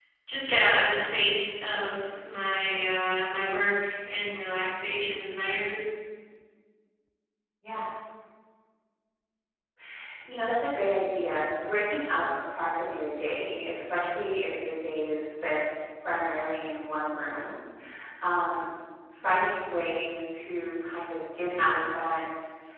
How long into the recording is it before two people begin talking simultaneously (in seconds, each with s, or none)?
none